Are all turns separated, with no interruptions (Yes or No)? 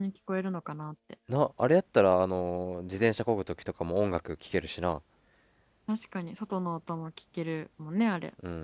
Yes